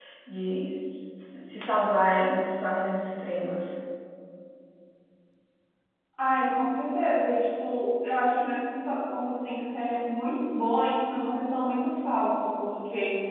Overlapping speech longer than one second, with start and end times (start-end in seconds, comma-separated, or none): none